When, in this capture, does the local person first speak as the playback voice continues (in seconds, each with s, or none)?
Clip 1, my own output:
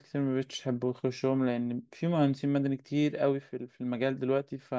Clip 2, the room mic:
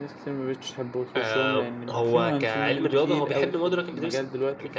1.2 s